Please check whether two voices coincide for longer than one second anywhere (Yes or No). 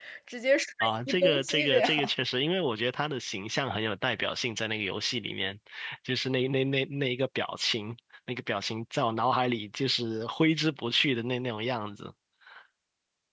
Yes